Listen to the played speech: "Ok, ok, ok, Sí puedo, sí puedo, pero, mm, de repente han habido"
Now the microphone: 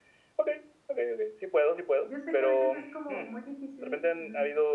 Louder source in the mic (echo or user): echo